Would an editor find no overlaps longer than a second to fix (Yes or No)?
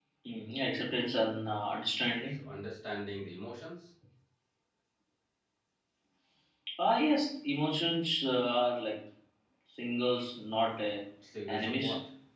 Yes